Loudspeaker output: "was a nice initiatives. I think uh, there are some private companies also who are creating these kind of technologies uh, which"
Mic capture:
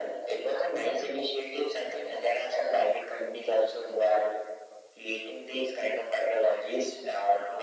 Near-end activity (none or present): none